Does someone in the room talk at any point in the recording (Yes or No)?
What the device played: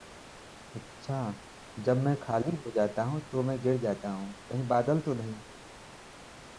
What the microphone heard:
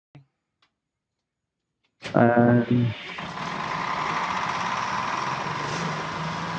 Yes